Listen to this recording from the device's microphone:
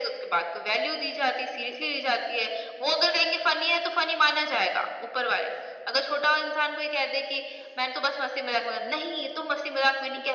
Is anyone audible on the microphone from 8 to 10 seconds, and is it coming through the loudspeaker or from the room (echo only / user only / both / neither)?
echo only